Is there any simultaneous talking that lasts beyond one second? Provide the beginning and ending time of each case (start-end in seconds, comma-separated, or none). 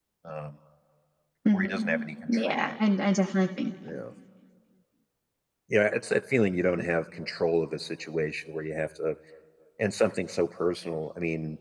1.5-2.8